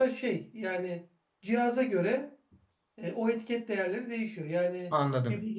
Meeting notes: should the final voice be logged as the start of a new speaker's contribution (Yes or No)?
No